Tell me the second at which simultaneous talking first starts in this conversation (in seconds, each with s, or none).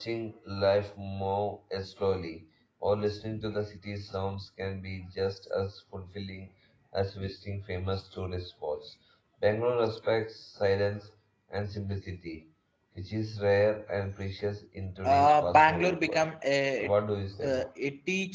15.0 s